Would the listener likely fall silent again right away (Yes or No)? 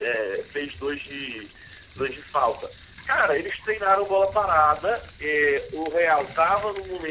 Yes